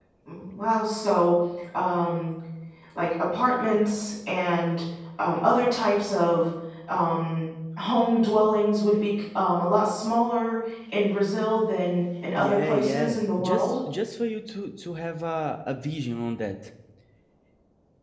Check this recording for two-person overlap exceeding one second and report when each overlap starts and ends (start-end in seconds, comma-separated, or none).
12.4-13.7